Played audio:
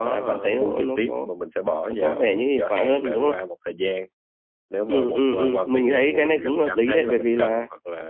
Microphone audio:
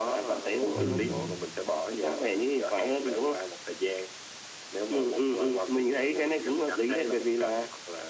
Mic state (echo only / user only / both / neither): both